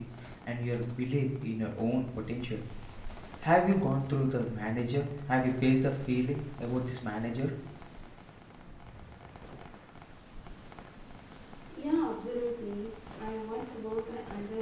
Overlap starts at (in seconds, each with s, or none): none